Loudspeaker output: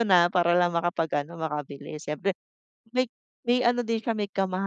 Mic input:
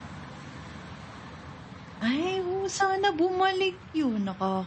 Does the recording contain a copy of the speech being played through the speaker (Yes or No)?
No